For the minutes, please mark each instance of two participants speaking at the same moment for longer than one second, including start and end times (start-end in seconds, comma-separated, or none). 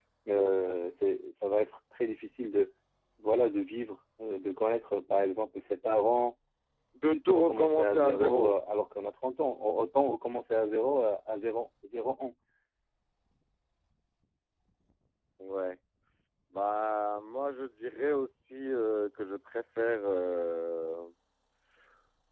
7.1-8.5